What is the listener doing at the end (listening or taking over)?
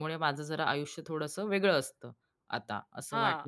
taking over